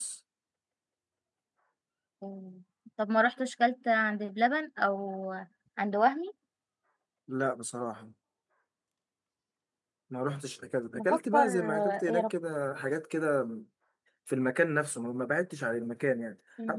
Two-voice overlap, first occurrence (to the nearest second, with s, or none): 11 s